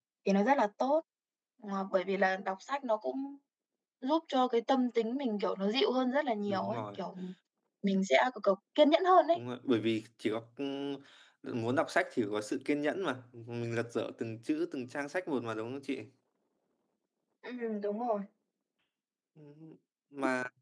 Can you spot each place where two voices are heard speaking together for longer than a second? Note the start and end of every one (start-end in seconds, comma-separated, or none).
none